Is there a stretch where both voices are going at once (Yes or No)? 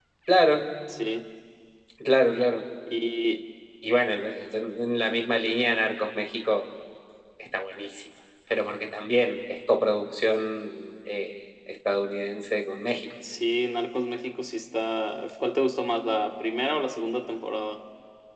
No